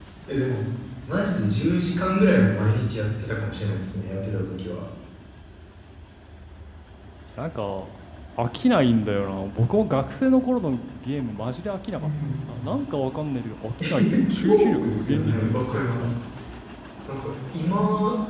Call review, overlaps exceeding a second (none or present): present